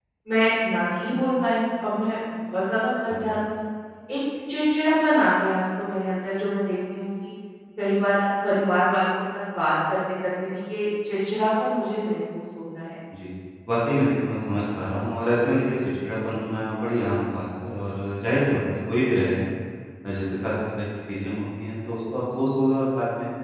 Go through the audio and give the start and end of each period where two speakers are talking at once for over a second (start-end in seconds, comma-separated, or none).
none